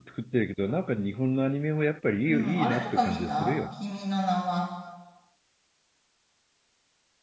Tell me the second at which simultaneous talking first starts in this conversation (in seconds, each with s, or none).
2.3 s